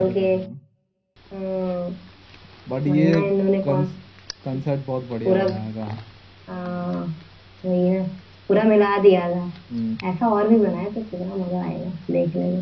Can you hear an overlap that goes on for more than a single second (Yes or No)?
No